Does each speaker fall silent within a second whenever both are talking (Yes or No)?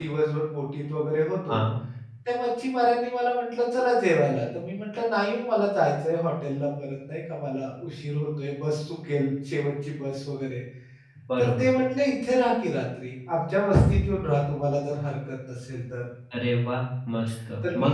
Yes